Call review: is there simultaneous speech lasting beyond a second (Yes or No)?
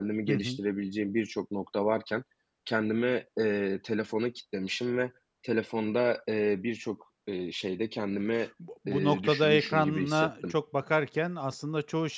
Yes